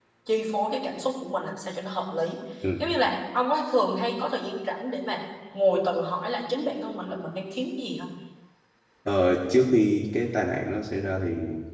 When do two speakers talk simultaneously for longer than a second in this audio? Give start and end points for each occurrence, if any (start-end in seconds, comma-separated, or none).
none